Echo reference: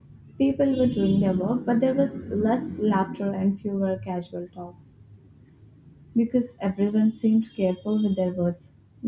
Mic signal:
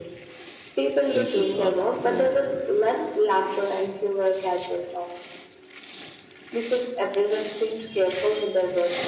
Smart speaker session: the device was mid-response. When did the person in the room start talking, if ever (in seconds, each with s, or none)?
1.1 s